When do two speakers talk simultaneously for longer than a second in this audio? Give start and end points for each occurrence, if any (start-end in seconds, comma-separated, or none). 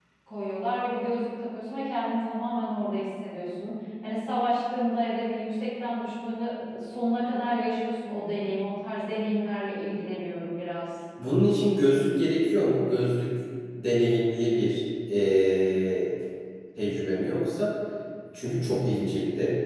none